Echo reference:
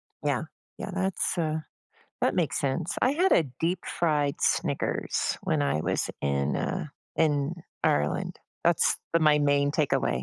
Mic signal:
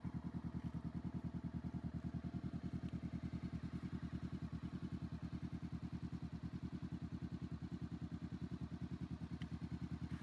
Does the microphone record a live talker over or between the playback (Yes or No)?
No